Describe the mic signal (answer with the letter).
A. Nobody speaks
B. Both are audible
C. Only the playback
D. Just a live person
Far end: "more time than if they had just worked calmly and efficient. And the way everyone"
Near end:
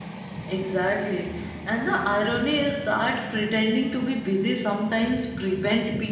D